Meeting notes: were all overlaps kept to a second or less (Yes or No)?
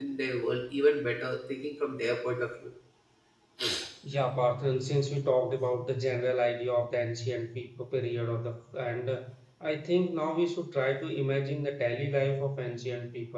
Yes